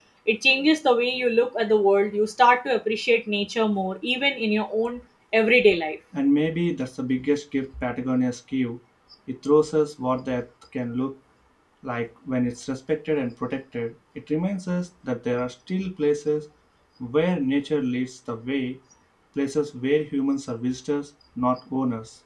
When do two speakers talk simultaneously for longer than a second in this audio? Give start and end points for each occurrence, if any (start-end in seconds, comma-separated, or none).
none